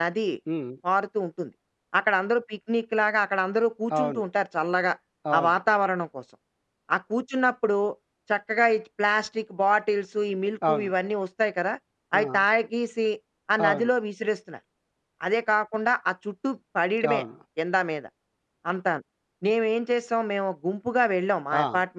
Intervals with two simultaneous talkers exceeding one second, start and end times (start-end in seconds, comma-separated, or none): none